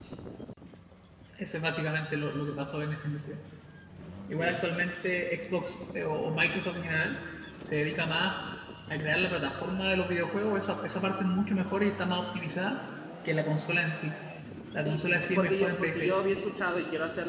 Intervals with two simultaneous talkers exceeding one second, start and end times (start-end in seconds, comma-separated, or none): 14.7-16.1